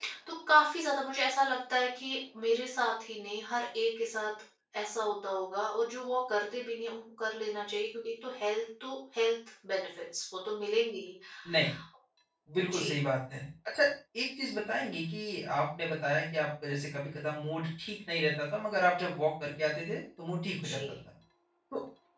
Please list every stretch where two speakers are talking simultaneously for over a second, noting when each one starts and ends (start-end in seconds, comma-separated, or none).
none